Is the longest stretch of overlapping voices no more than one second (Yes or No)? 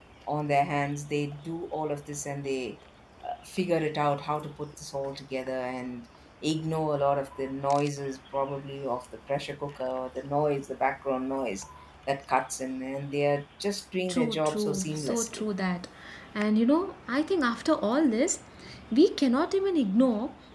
No